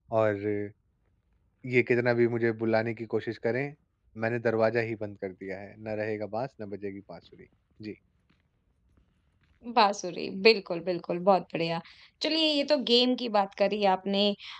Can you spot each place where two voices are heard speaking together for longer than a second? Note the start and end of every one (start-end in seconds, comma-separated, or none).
none